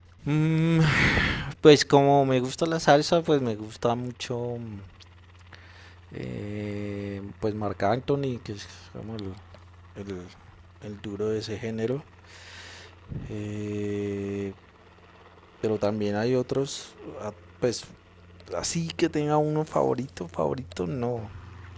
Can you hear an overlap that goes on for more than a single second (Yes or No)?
No